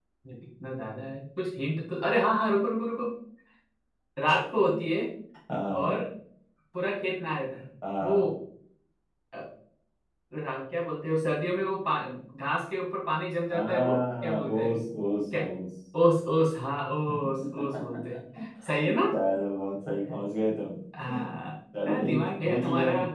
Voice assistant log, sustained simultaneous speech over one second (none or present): present